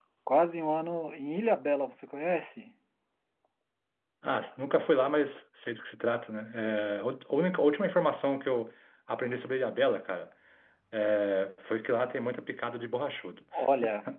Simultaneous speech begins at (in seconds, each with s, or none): none